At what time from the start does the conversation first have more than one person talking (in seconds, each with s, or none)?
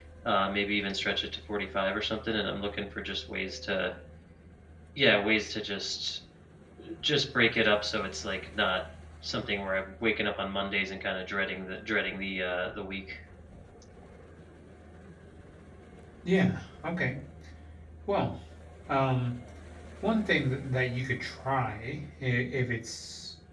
none